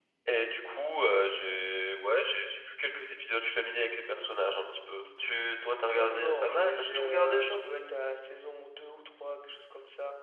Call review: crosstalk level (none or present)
present